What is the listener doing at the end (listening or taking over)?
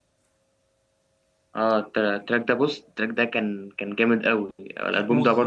taking over